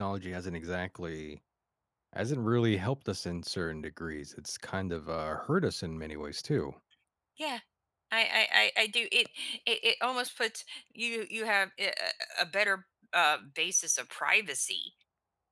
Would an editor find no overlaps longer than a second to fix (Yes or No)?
Yes